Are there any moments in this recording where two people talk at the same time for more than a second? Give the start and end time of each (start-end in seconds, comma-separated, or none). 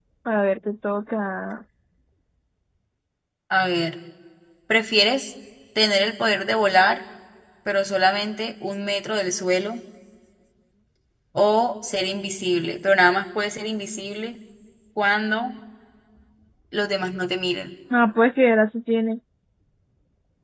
none